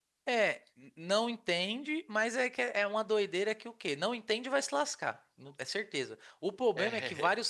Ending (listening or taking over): listening